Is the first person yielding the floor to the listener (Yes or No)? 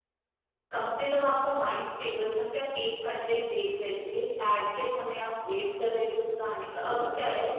No